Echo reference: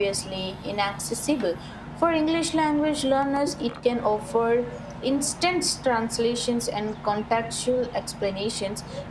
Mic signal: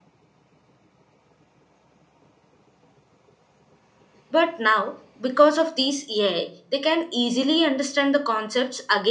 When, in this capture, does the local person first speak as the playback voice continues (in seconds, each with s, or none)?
4.3 s